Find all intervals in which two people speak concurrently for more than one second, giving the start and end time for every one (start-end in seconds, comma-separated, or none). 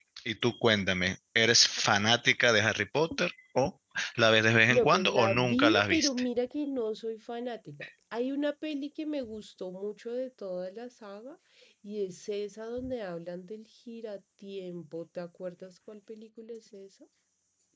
4.8-6.1